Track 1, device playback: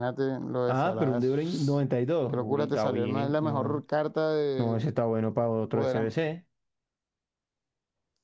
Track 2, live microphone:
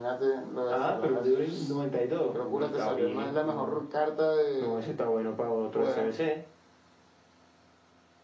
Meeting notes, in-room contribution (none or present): none